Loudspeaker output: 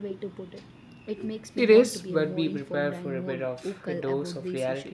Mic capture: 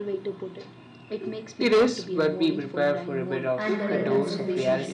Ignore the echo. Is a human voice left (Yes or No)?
Yes